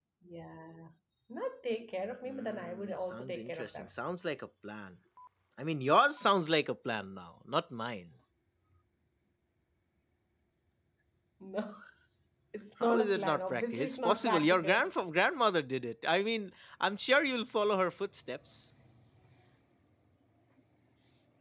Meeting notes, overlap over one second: present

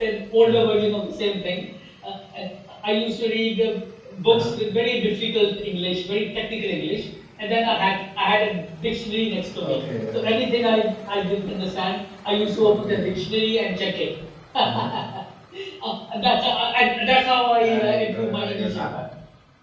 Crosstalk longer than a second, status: present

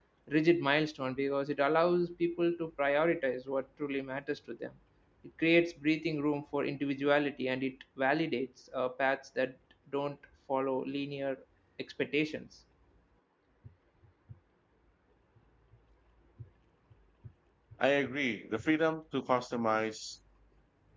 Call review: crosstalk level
none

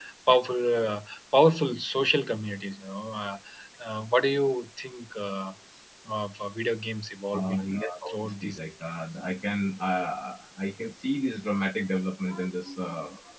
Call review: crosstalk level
present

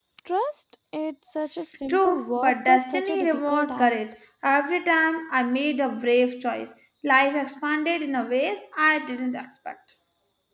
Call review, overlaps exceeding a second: present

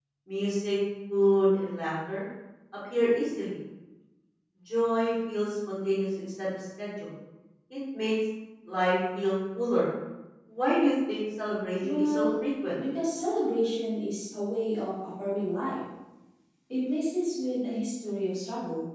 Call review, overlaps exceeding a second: none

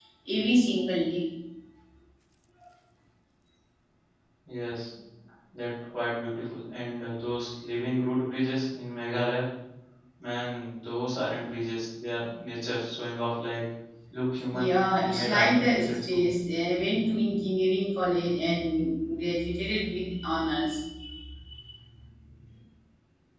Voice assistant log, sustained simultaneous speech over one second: present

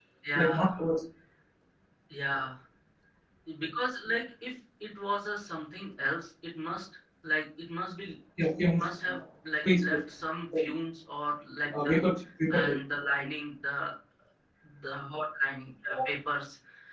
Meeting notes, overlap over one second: none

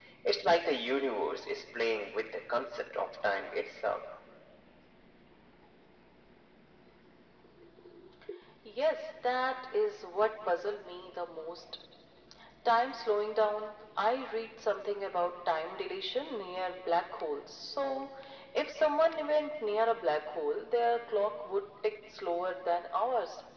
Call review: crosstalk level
none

